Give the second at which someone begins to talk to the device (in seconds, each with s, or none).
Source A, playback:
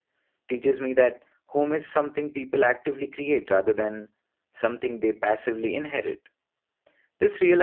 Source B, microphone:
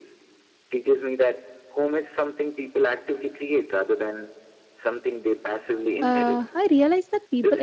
6.0 s